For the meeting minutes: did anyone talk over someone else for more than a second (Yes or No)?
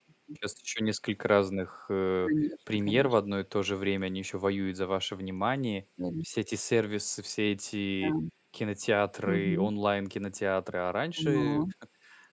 No